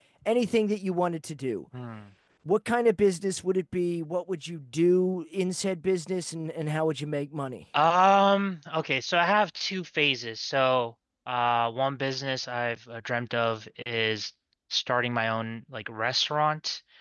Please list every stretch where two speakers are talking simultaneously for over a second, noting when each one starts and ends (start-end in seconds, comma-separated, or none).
none